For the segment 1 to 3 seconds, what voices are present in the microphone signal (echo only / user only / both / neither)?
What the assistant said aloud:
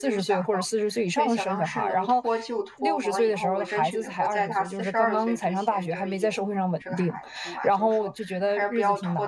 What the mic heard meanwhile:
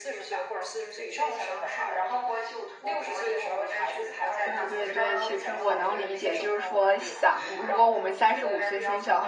echo only